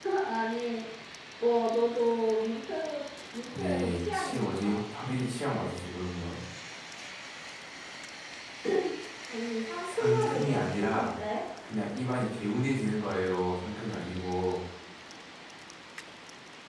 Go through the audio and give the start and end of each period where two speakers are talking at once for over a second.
3.5-4.8, 9.8-11.1

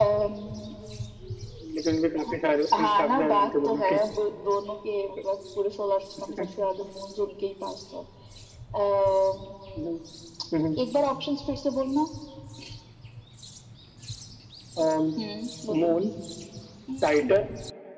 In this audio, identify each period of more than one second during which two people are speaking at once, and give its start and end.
2.8-4.0

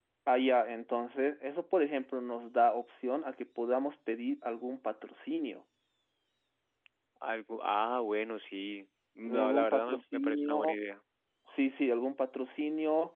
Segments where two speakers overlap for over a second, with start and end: 9.3-10.8

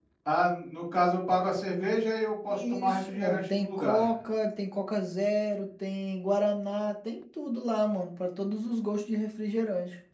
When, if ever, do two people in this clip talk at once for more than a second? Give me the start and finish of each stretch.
2.5-4.1

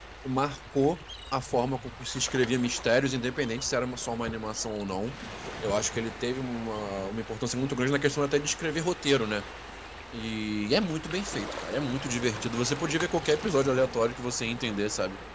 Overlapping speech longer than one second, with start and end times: none

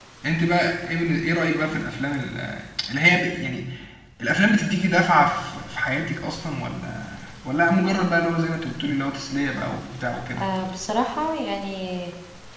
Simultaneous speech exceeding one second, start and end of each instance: none

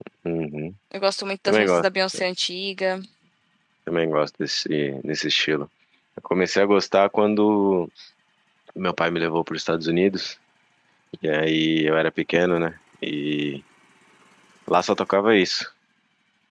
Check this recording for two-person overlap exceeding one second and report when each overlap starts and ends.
none

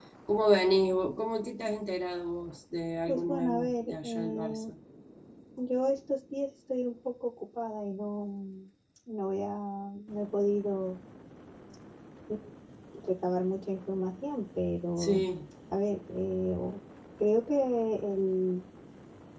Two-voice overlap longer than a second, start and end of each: 3.1-4.6

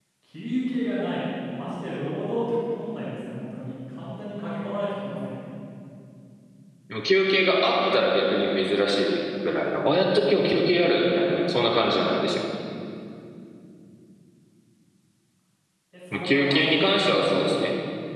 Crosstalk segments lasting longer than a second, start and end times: 16.1-17.5

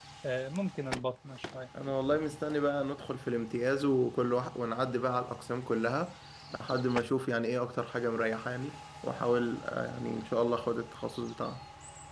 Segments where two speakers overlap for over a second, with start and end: none

